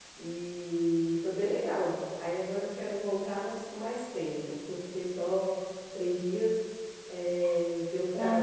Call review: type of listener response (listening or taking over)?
listening